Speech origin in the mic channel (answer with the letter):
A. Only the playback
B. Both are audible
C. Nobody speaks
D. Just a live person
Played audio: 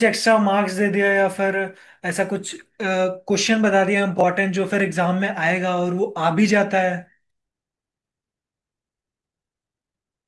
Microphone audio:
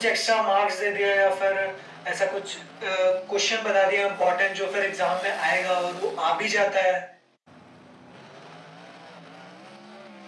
A